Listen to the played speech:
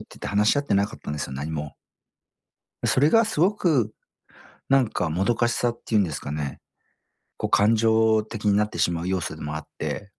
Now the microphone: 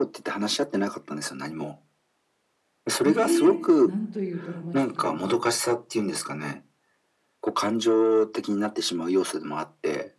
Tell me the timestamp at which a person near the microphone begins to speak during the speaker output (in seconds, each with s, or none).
3.0 s